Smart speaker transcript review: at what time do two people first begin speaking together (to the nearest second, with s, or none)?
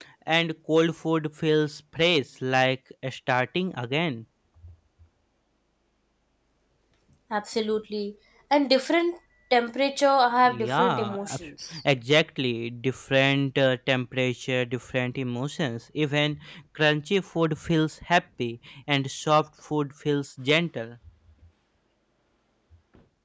10 s